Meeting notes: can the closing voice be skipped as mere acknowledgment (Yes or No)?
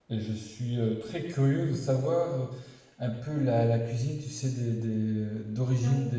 Yes